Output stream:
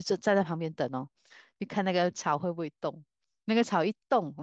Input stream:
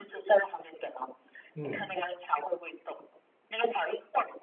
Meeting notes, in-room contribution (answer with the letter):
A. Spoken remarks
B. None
A